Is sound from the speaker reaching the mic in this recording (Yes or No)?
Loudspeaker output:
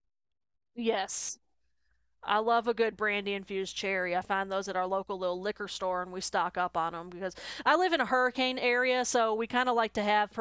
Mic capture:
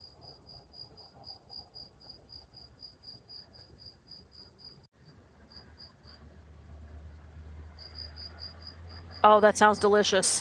No